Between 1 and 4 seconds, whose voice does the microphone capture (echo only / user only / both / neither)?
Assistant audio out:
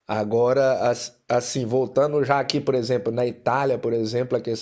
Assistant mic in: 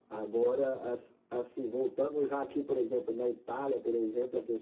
echo only